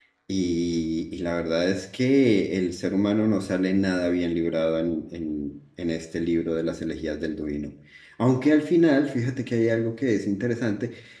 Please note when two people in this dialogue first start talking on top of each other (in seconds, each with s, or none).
none